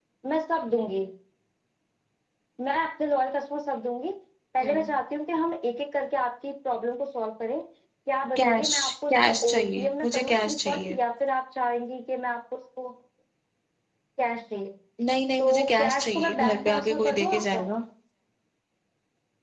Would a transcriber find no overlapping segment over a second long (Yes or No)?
No